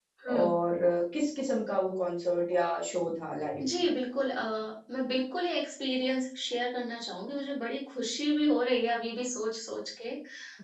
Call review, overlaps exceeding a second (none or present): none